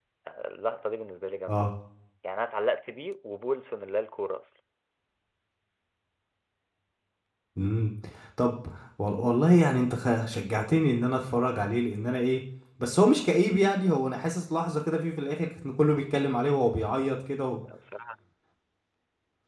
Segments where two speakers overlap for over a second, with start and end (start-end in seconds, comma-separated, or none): none